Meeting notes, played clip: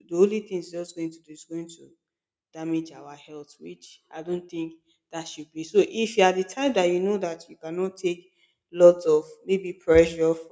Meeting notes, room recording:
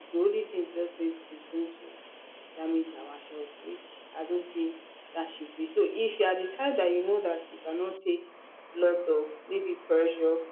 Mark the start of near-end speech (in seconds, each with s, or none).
none